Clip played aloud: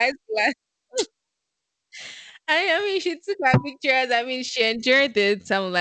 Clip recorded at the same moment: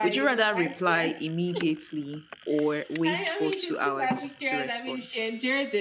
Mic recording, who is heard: both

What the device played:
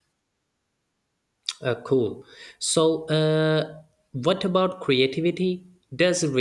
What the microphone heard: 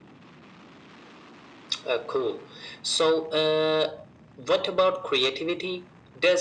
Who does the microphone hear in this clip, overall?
echo only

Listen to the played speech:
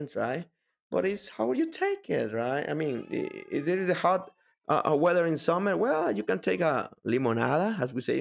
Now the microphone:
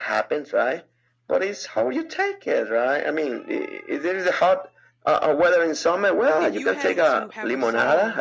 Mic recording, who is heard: both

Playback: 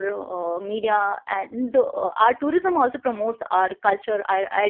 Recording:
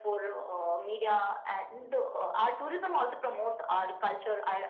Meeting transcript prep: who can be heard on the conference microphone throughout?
echo only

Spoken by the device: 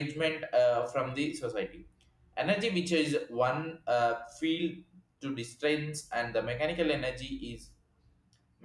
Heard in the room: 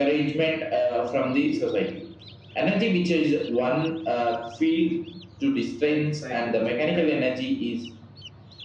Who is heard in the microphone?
both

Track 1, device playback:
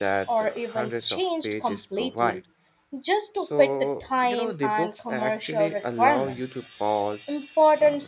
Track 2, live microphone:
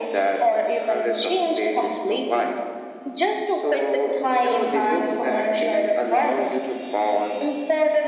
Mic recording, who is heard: echo only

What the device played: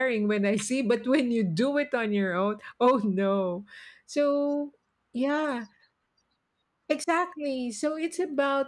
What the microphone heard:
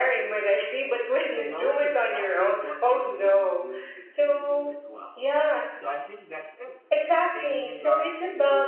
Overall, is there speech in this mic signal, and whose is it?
both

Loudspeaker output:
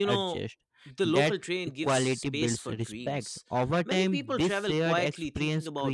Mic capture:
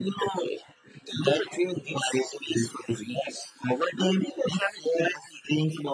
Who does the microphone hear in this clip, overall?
echo only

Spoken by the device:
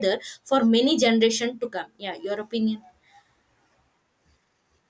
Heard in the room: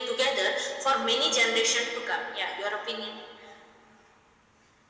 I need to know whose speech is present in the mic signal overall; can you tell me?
echo only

